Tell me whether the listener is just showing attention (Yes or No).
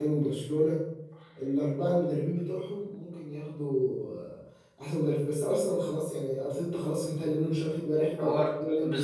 No